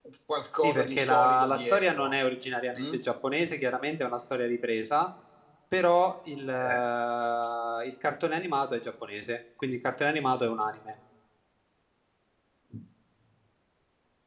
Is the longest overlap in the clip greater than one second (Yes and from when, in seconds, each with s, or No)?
Yes, from 0.5 s